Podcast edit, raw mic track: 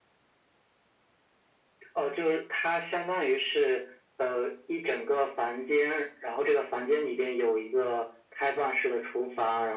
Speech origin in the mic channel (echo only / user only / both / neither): echo only